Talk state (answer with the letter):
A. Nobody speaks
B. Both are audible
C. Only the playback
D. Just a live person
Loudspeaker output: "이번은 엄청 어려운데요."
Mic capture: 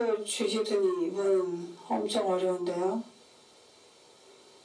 C